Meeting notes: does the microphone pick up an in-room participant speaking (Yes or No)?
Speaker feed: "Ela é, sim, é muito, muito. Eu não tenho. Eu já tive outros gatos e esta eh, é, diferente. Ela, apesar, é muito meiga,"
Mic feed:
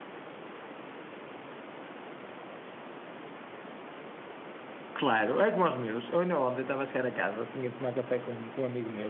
Yes